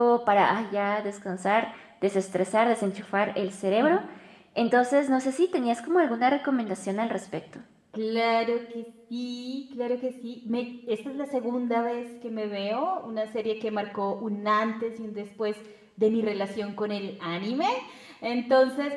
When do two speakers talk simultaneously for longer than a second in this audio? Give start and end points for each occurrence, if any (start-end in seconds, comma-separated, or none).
none